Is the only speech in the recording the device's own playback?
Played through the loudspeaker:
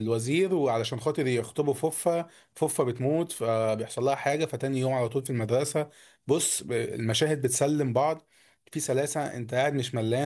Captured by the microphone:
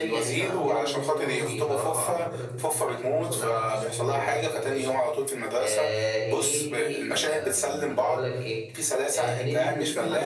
No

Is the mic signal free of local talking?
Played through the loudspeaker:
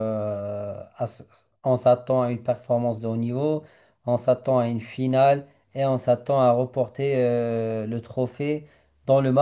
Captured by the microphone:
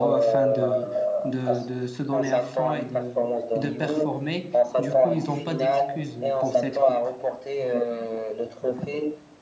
No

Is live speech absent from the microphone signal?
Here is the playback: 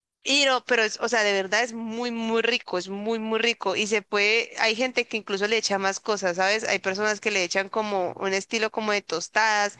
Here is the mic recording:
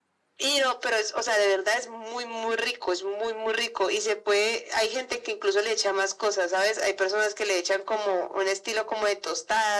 Yes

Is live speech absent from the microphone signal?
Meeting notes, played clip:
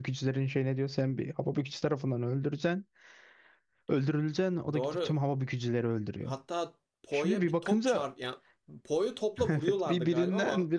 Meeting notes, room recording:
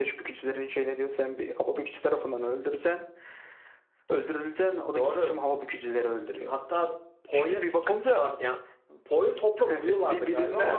Yes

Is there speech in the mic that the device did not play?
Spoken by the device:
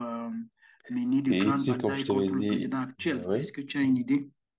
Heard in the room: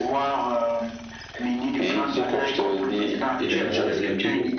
Yes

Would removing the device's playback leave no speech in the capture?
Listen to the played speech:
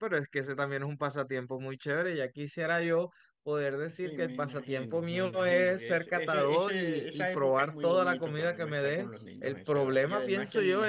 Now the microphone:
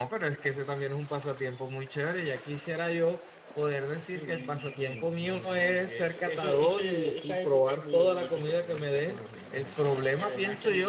Yes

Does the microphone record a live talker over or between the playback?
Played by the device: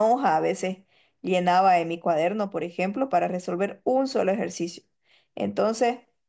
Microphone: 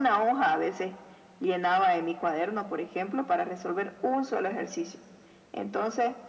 No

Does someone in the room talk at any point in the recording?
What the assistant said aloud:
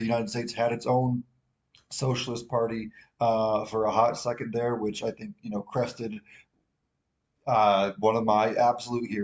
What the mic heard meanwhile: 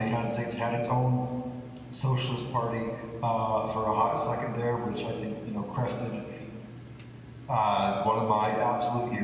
No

